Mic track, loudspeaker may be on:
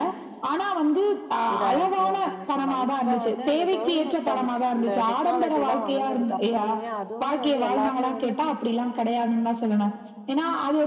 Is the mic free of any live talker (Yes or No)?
No